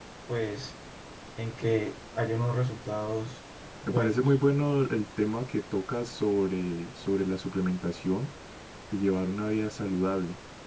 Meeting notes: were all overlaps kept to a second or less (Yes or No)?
Yes